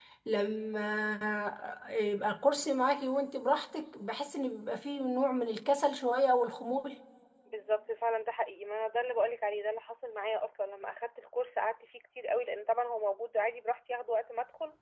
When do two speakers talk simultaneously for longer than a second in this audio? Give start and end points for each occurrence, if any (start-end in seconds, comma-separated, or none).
none